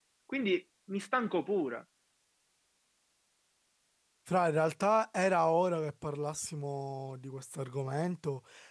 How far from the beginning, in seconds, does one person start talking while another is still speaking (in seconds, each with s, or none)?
none